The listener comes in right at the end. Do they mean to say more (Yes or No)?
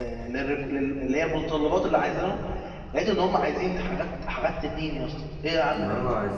Yes